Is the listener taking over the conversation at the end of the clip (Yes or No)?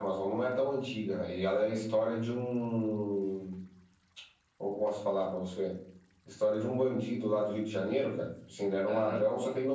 No